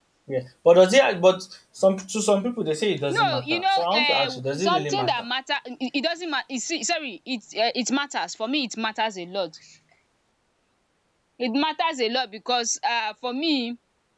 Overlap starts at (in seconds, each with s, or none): 3.1 s